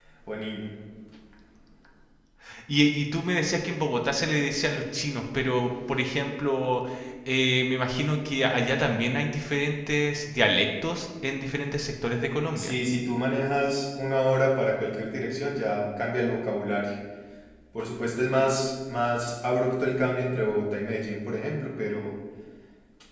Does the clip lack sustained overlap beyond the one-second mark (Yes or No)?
Yes